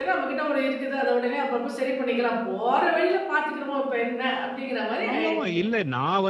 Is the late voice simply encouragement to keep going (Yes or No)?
No